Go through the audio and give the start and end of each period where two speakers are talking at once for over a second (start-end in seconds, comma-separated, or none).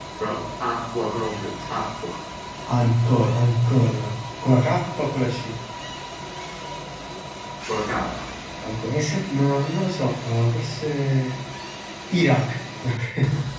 none